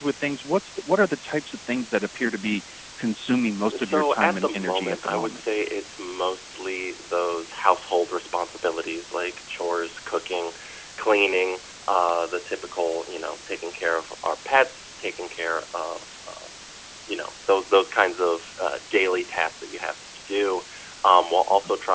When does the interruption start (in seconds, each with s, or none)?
3.7 s